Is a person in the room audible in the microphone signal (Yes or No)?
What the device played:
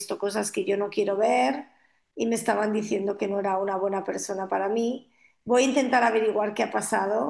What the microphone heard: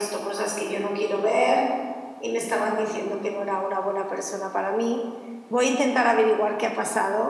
No